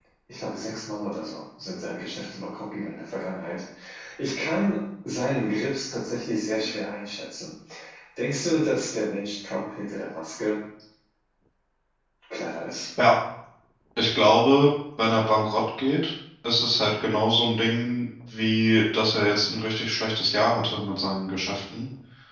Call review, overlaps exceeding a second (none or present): none